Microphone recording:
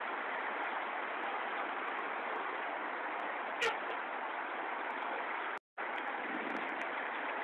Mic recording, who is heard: neither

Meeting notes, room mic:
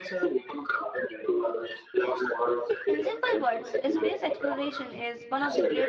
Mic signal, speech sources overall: both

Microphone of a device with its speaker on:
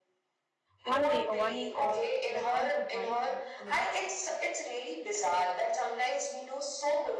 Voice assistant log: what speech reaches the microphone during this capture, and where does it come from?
both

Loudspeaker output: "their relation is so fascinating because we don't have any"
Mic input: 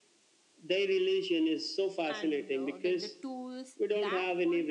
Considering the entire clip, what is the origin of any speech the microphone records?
both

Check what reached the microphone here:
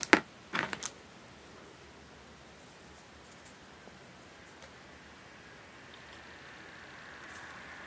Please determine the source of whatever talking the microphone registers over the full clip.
neither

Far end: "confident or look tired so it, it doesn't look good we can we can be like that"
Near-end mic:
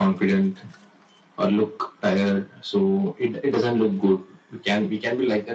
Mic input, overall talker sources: echo only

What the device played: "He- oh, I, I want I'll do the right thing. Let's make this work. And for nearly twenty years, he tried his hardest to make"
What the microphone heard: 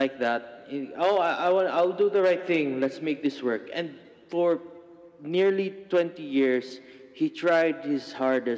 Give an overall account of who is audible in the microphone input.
echo only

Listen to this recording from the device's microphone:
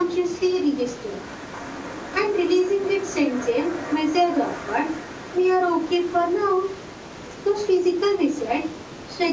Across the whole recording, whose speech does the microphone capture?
echo only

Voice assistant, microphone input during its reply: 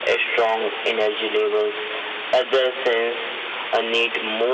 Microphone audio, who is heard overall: echo only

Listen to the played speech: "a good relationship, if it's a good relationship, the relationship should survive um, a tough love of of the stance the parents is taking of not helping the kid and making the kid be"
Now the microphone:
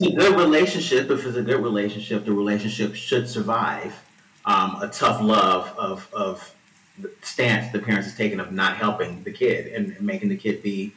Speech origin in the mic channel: echo only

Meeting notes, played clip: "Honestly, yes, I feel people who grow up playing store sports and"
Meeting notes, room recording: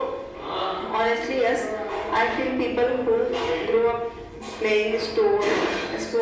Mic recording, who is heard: echo only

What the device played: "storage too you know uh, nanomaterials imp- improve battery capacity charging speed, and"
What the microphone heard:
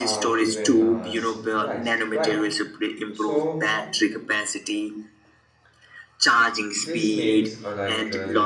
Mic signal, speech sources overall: both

